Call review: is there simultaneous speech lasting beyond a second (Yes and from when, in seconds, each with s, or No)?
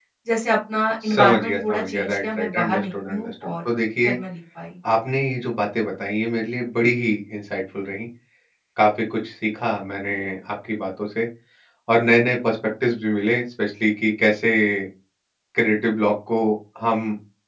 Yes, from 1.0 s